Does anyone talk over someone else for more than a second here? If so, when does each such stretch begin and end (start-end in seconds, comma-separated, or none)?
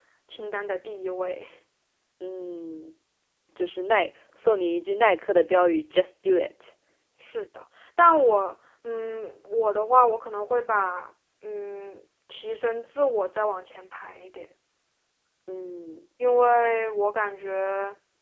none